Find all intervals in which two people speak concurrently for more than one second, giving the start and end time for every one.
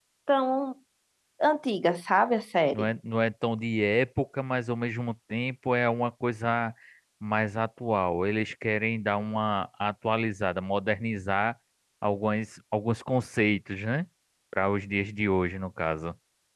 none

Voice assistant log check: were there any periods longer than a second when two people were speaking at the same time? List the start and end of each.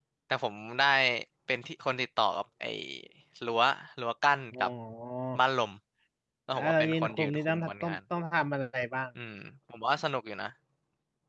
6.5-8.0

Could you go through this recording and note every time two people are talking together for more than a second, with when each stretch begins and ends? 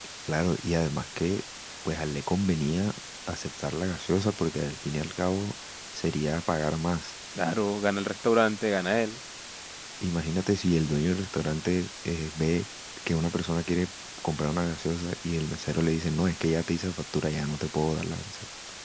none

